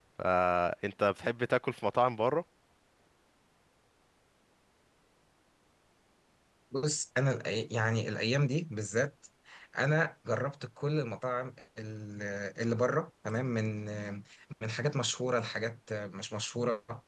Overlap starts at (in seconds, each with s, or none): none